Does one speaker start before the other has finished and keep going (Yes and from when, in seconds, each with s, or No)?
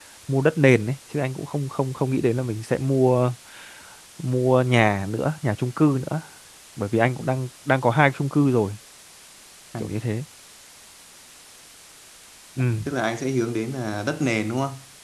No